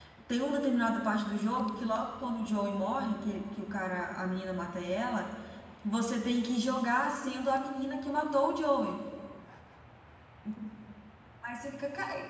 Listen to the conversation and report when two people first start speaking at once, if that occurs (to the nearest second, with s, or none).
none